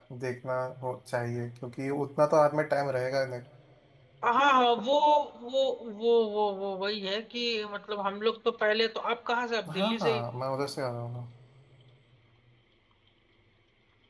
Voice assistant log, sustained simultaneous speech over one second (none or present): none